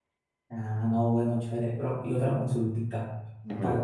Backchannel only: Yes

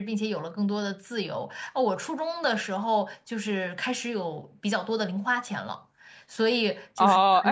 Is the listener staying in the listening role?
No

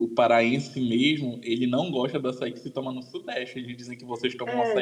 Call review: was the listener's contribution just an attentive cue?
No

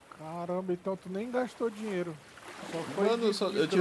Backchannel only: No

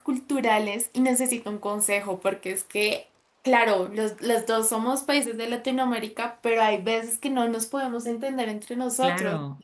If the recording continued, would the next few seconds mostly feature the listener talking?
Yes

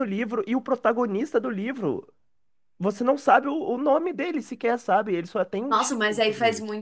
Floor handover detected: Yes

